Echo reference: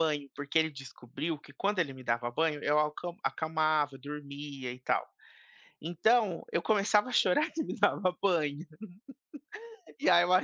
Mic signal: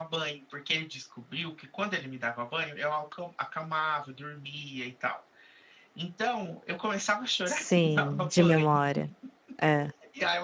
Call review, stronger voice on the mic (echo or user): user